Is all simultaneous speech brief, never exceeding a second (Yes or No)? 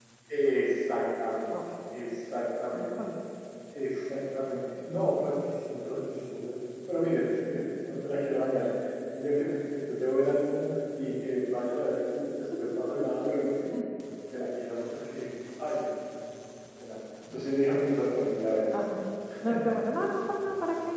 Yes